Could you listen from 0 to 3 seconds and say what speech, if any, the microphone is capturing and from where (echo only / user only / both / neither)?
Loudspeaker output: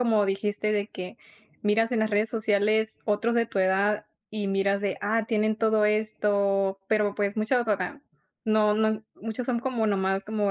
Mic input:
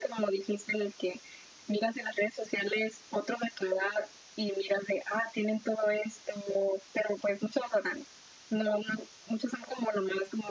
echo only